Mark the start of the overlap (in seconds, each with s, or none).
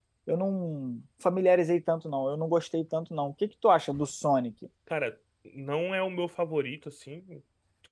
none